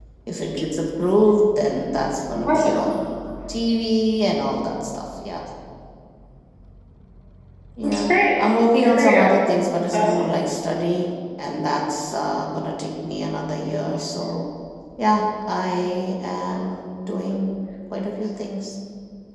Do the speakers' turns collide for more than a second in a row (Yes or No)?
No